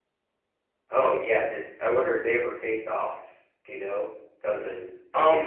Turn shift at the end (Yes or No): Yes